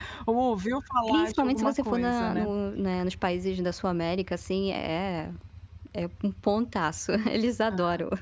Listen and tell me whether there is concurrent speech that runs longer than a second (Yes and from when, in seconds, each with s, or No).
Yes, from 1.1 s